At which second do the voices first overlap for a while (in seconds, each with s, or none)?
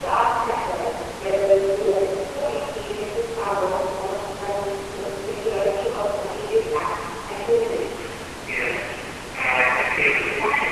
none